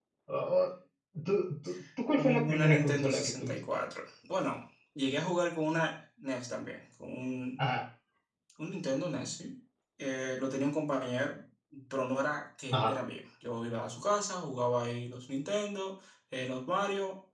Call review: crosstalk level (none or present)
present